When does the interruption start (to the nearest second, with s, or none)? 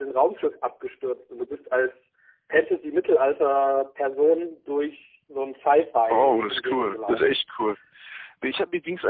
6 s